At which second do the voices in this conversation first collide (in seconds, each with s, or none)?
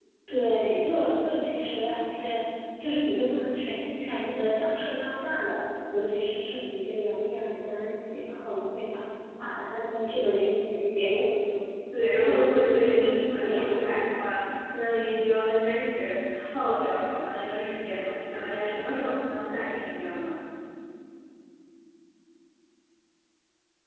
12.2 s